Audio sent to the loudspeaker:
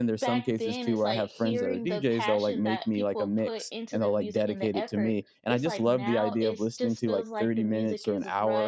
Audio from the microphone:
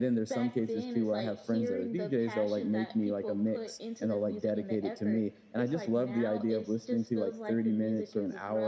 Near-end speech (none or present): none